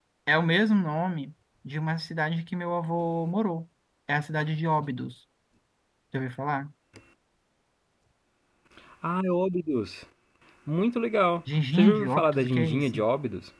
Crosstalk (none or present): present